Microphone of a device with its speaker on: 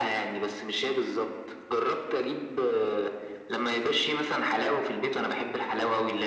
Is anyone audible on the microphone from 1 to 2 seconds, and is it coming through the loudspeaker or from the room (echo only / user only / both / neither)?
echo only